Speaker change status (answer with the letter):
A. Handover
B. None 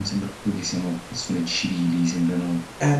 A